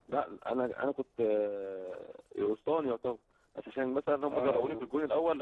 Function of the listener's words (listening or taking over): listening